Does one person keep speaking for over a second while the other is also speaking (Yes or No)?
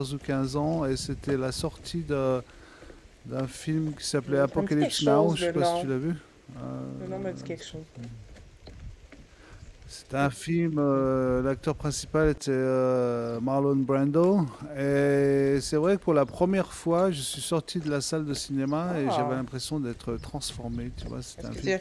Yes